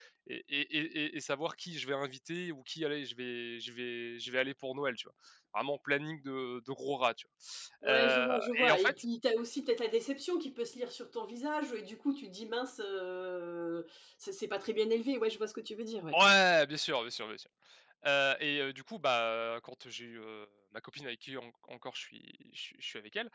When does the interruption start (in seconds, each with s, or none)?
7.8 s